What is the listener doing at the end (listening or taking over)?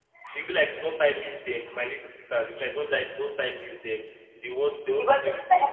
taking over